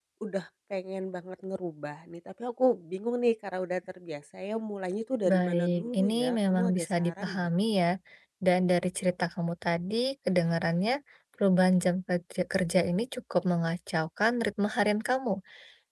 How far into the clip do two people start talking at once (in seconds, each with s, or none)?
5.2 s